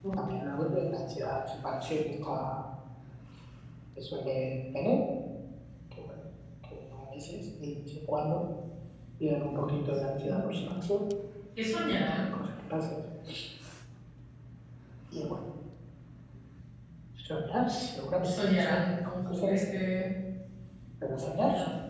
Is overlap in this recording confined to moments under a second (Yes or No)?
No